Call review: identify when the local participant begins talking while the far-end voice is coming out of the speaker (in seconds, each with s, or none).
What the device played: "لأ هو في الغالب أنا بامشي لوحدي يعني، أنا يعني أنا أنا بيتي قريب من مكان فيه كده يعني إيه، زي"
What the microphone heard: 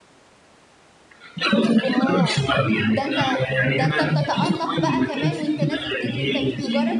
1.8 s